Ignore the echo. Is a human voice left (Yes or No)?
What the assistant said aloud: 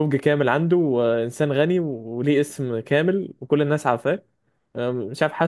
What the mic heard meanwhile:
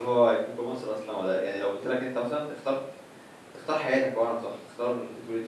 Yes